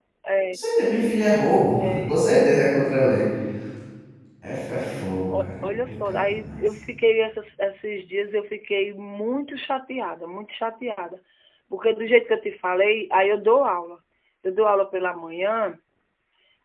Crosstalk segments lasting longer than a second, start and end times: 5.4-6.6

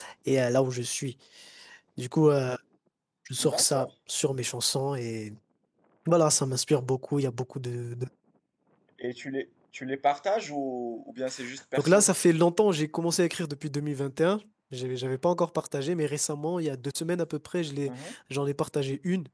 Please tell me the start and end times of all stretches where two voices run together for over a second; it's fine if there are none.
none

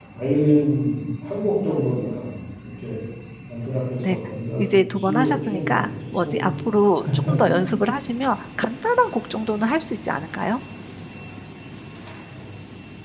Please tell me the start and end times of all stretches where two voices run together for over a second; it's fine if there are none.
4.6-6.5

